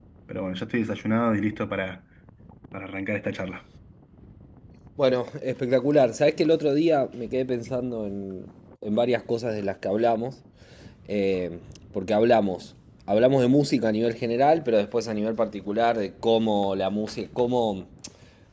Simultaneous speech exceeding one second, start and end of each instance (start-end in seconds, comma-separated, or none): none